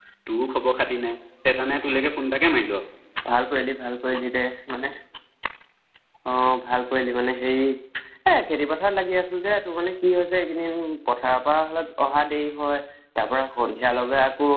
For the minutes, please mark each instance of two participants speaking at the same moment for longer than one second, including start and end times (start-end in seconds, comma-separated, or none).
none